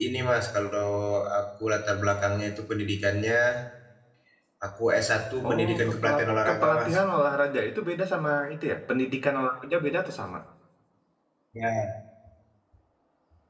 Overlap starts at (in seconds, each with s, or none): 5.5 s